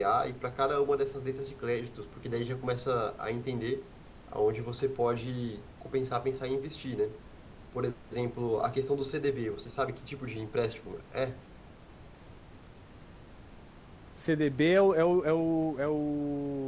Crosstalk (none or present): none